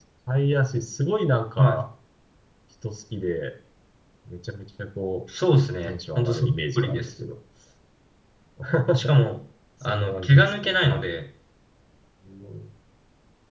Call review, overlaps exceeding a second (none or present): present